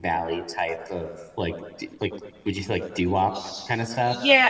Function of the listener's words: taking over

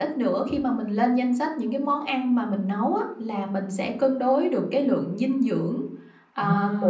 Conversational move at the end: listening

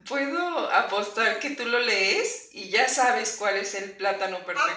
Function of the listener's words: taking over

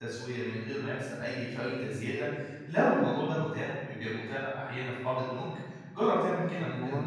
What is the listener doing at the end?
listening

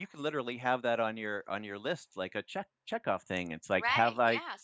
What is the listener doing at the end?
taking over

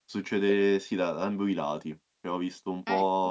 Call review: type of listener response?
listening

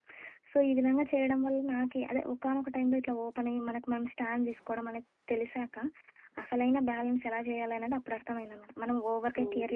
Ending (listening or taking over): listening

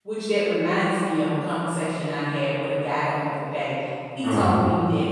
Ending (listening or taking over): listening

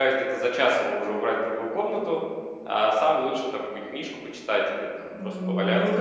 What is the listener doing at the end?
taking over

